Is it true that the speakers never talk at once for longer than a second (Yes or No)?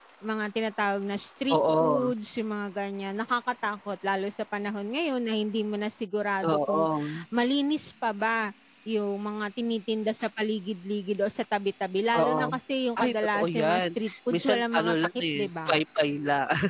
No